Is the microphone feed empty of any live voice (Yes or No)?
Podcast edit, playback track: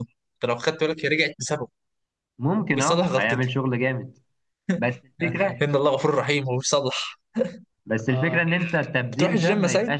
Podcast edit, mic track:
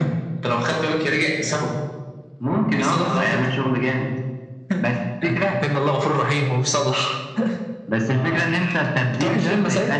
Yes